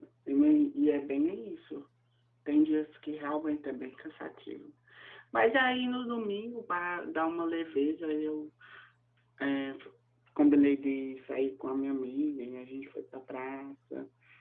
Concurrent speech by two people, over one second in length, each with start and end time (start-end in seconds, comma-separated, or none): none